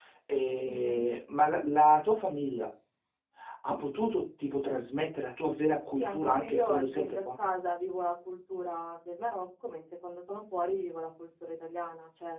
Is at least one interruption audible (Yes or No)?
Yes